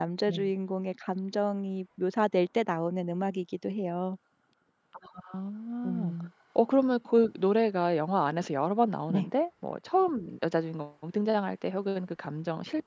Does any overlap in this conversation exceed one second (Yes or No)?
No